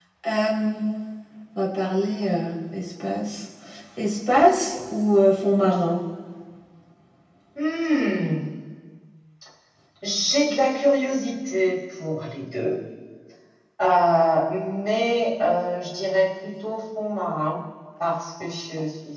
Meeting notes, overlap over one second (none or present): none